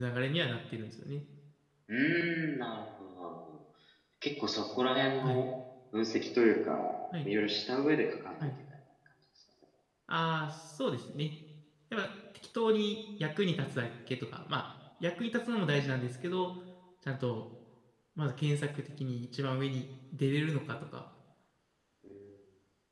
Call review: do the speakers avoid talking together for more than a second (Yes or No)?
Yes